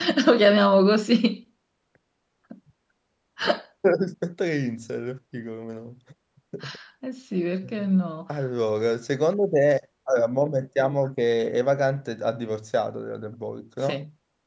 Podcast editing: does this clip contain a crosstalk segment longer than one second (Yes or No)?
No